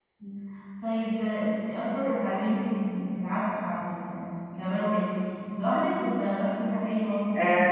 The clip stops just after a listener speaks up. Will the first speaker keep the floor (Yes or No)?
No